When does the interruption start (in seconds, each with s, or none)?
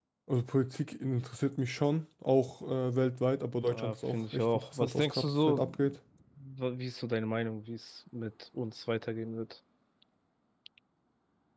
3.7 s